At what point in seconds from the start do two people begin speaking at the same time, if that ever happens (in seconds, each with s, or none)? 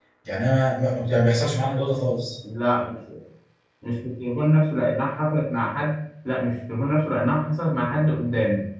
none